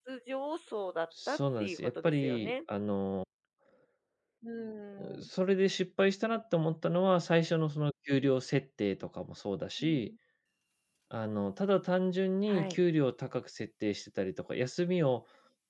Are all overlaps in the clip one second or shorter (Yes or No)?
No